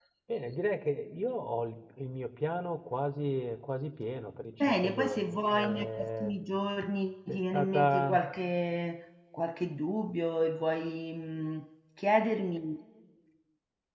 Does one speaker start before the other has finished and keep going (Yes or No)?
Yes